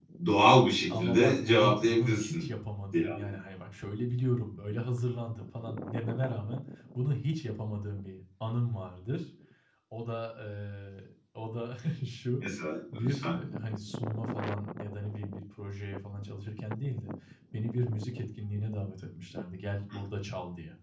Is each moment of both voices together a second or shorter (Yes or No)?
No